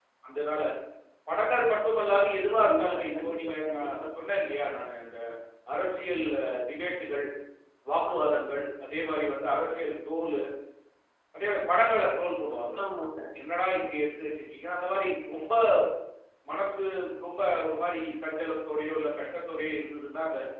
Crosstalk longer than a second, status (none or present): present